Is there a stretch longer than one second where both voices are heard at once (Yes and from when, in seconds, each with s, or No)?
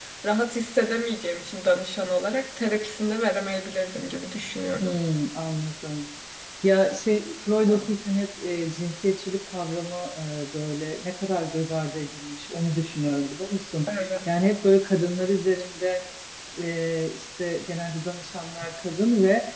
No